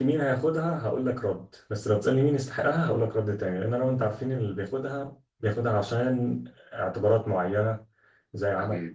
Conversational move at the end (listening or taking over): listening